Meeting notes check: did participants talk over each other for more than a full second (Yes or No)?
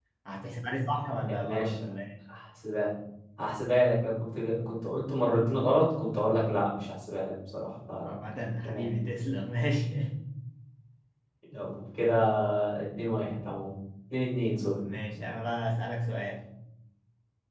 No